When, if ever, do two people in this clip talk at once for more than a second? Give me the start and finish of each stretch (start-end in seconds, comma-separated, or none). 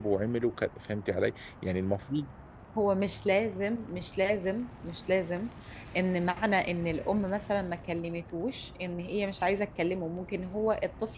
none